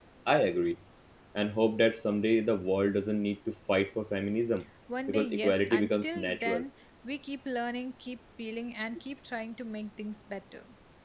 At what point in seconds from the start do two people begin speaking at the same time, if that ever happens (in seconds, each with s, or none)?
5.1 s